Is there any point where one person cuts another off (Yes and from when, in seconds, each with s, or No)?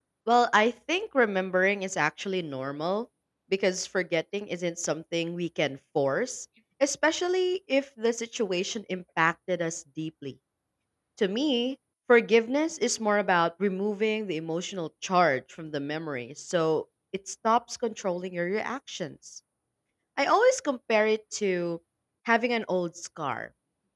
No